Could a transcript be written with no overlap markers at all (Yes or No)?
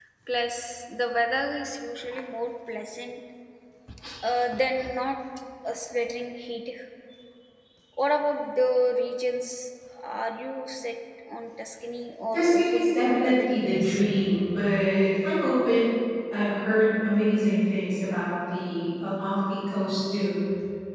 No